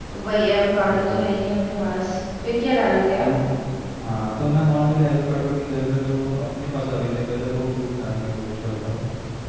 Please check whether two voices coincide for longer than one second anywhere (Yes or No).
No